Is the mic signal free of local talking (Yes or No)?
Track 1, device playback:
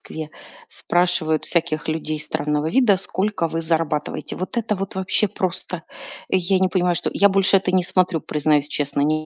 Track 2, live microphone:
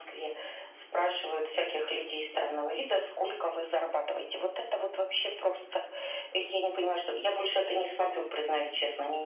Yes